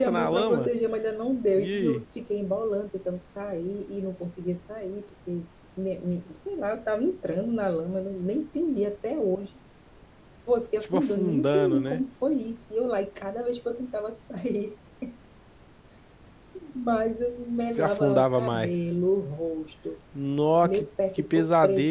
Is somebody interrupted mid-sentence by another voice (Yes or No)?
Yes